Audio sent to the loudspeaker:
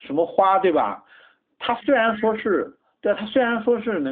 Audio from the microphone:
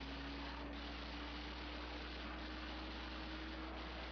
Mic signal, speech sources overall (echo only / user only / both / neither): neither